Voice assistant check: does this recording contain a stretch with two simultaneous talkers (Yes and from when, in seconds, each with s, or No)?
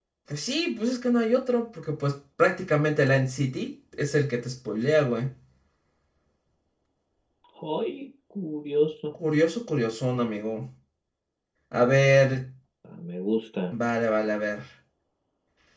No